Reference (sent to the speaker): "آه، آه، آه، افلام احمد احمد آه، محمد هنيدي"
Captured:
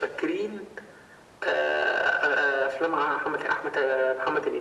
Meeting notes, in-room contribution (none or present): none